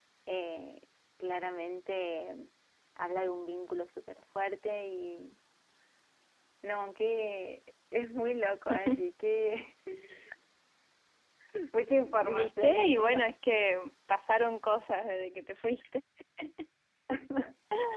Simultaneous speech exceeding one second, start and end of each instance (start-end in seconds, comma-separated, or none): 12.0-13.3